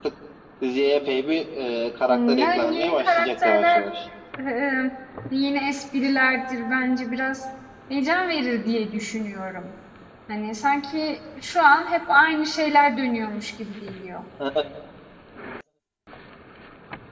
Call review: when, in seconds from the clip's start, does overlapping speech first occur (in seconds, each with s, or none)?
2.1 s